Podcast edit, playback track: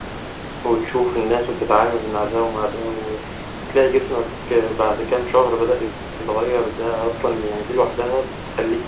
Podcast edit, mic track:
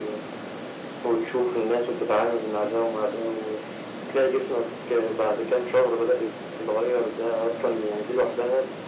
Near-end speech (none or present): none